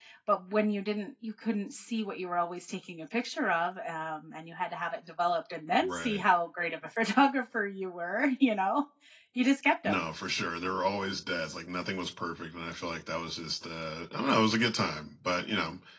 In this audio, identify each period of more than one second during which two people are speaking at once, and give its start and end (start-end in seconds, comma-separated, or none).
none